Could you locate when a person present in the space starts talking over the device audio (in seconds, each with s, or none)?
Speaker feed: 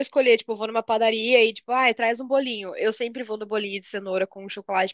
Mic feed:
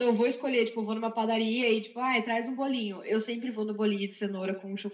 none